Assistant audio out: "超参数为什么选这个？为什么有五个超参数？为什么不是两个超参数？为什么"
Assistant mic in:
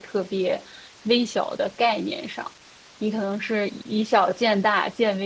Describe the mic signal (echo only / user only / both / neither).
user only